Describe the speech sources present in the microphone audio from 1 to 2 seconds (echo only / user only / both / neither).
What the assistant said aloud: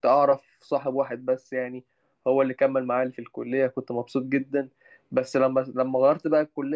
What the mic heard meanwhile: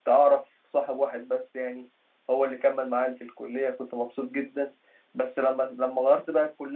echo only